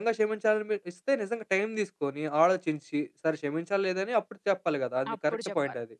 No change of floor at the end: No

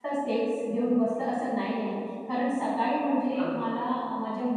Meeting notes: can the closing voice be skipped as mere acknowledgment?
Yes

